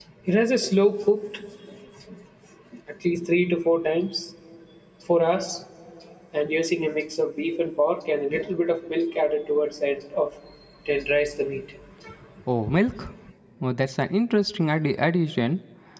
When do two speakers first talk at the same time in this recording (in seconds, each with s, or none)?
none